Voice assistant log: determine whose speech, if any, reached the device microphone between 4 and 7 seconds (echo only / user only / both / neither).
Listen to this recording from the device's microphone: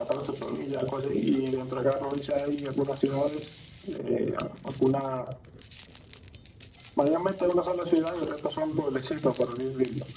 echo only